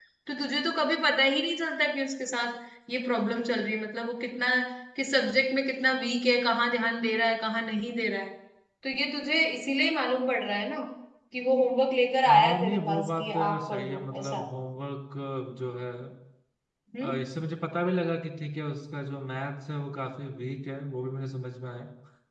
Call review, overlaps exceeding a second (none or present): present